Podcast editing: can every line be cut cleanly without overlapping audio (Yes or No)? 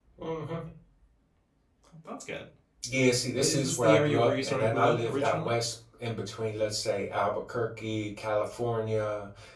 No